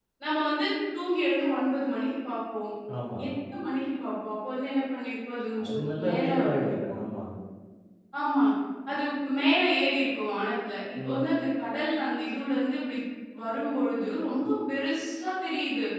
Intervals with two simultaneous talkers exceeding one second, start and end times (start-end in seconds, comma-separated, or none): 5.7-7.0